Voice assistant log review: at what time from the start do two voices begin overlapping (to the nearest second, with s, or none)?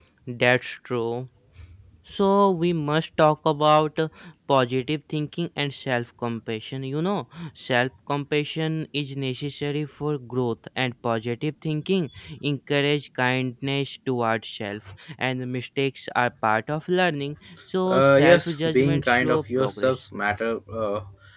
18 s